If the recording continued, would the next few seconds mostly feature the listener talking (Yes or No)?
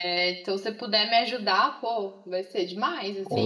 Yes